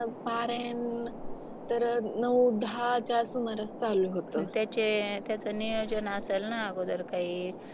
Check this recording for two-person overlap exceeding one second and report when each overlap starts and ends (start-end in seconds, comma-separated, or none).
none